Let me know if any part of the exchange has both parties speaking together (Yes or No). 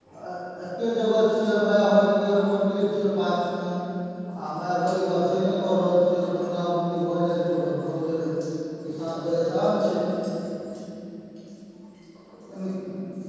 No